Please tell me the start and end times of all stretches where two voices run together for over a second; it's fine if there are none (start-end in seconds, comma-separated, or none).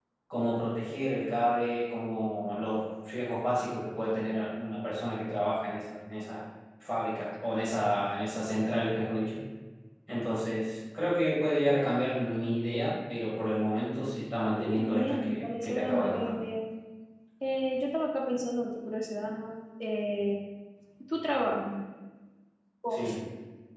14.5-16.4